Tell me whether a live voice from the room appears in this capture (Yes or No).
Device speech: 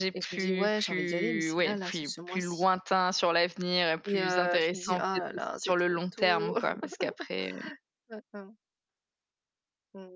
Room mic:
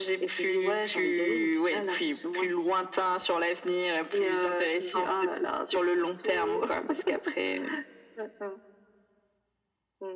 No